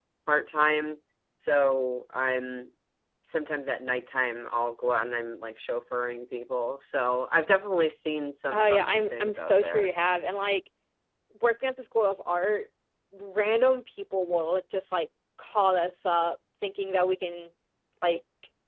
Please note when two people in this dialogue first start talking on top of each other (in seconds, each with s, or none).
8.5 s